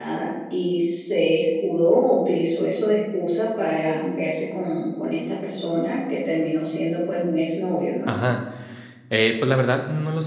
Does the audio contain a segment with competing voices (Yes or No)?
No